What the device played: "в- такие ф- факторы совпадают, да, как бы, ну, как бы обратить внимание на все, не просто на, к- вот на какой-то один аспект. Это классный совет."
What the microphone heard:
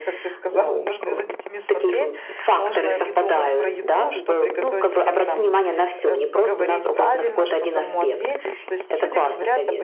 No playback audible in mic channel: No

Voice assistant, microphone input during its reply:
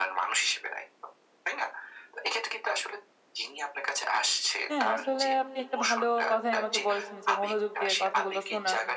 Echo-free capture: No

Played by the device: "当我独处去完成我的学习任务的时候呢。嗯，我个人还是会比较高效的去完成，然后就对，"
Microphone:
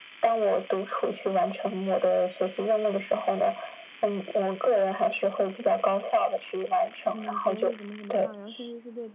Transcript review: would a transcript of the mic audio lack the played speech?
No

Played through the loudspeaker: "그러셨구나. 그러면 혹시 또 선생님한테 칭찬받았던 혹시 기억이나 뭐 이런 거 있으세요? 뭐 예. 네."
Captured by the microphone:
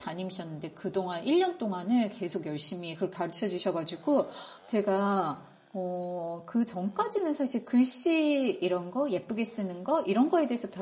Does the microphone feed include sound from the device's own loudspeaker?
No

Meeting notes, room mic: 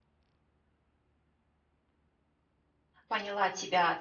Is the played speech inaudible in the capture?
Yes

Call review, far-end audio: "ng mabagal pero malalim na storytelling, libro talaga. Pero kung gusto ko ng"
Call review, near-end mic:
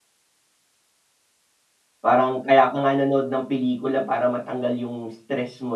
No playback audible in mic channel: Yes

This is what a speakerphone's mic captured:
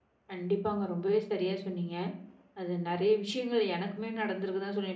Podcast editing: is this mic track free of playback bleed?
Yes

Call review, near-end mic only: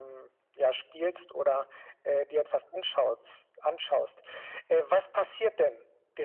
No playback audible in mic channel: No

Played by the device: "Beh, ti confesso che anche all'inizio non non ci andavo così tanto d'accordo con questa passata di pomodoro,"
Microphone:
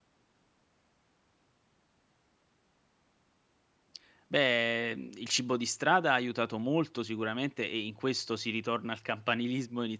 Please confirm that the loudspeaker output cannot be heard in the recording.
Yes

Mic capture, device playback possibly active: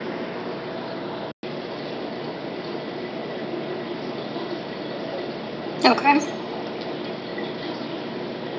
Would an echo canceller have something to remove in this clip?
No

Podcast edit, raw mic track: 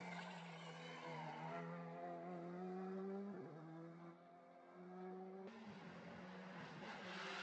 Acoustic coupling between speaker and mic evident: No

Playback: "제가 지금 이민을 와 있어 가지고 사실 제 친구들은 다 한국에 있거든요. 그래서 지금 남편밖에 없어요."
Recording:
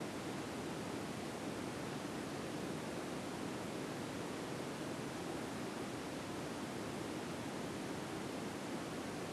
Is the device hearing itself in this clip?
No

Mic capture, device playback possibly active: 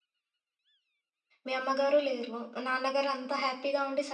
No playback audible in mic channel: Yes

